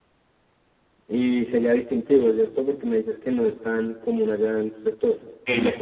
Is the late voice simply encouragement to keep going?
Yes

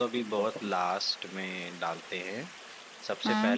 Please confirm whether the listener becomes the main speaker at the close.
No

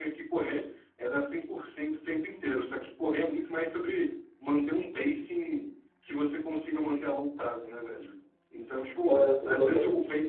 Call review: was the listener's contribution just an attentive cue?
Yes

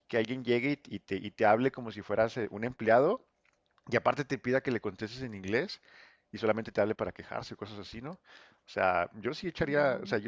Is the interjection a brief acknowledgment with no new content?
Yes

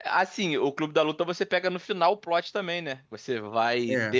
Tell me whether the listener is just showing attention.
Yes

